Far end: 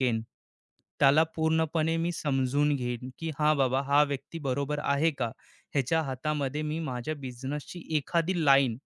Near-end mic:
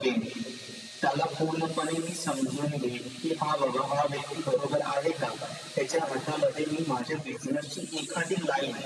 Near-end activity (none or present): none